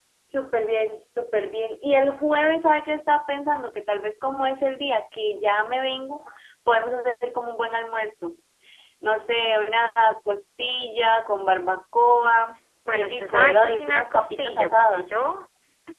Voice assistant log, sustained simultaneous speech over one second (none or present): present